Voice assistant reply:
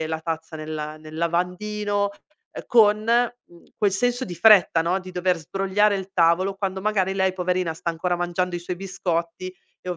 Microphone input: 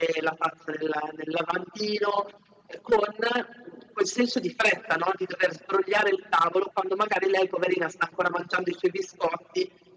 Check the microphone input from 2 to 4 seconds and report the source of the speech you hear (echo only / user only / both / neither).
echo only